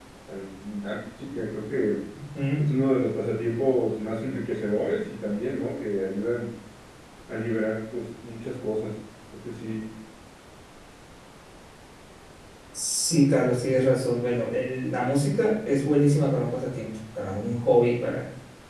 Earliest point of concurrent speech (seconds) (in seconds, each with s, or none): none